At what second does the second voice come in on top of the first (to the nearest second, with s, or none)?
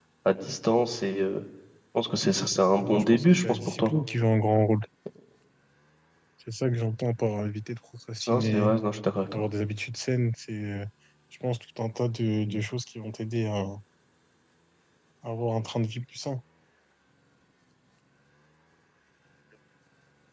3 s